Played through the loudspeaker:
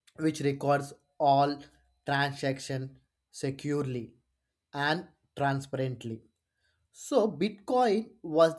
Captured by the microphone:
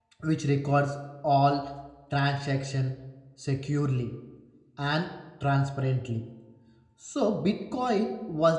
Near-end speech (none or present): none